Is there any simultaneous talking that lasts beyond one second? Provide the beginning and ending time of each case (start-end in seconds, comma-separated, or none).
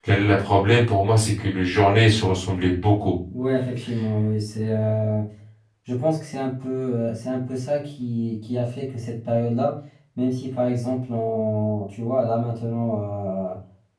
none